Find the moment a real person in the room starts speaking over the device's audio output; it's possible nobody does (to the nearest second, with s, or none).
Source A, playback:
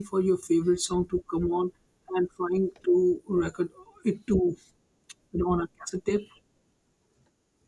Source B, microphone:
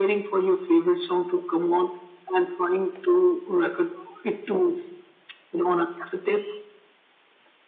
none